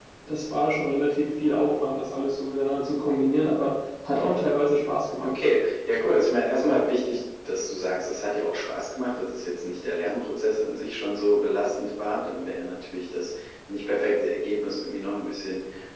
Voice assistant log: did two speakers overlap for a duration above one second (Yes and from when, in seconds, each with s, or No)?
No